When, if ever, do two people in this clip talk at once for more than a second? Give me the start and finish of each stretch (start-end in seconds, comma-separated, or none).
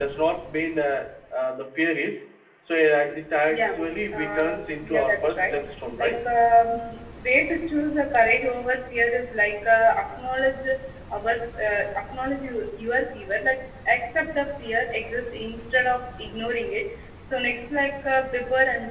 4.1-5.6